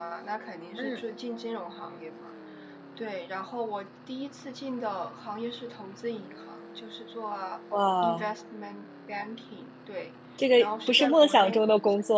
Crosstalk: present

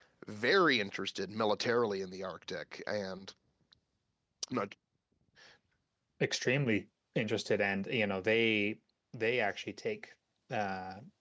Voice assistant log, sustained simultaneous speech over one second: none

